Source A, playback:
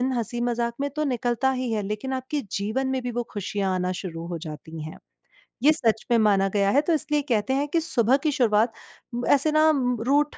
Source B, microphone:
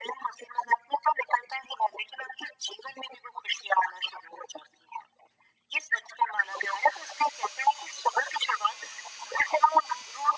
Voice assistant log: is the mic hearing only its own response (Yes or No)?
Yes